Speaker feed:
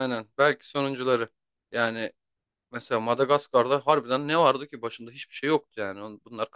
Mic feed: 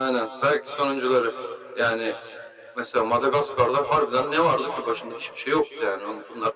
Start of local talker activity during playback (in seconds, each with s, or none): none